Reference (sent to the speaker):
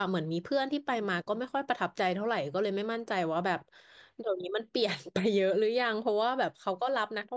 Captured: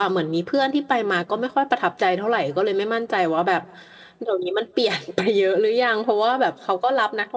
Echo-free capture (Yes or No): No